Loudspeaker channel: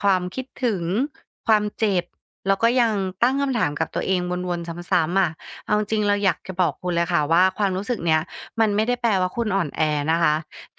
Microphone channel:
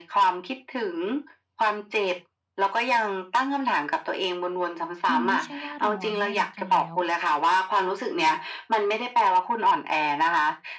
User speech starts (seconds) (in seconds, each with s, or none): 5.1 s